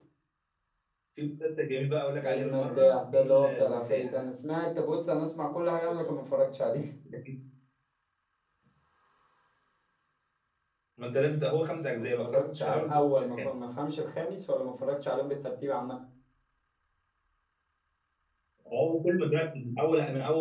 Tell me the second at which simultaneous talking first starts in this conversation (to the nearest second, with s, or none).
2 s